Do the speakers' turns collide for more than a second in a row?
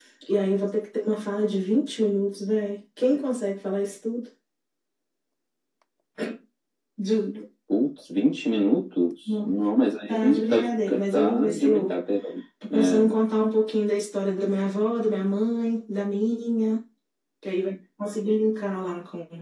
Yes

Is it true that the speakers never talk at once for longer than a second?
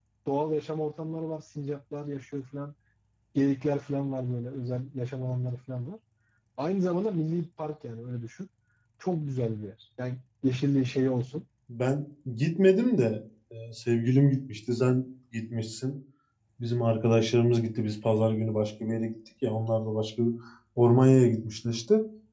Yes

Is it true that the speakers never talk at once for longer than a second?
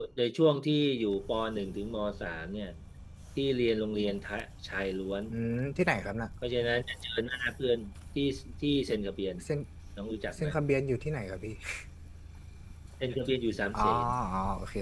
Yes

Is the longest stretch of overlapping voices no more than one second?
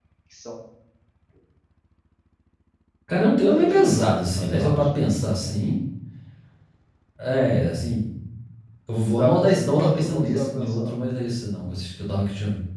No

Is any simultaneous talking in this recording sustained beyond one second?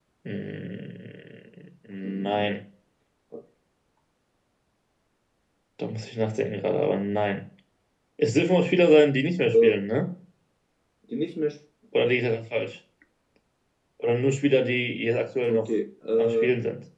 No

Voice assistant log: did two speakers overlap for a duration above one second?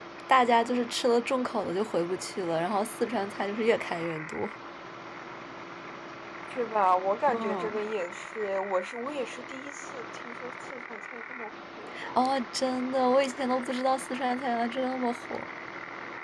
No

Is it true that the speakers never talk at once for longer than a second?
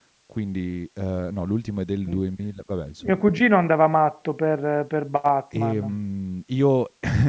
Yes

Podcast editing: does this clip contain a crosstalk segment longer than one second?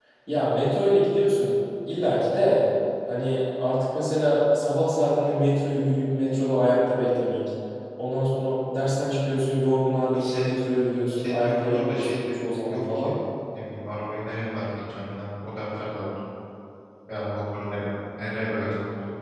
Yes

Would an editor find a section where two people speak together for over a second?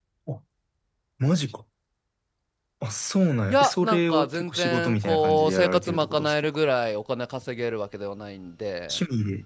Yes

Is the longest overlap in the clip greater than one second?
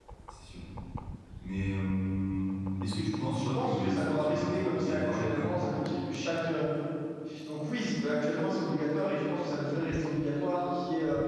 Yes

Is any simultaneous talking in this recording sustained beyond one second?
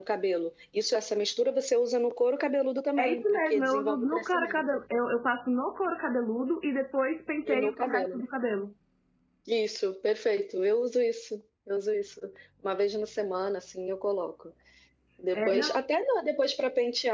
Yes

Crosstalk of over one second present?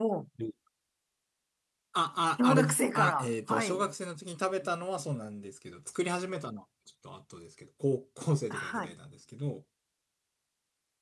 Yes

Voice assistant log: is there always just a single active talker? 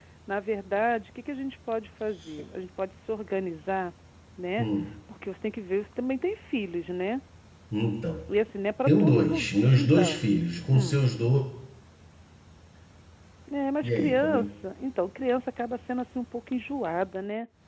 No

